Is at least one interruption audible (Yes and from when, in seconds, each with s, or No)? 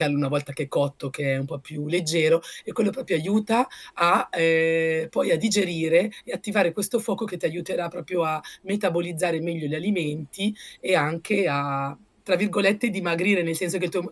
No